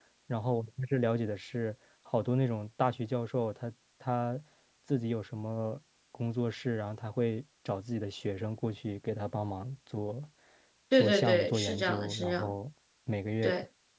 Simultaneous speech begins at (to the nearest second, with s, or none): 11 s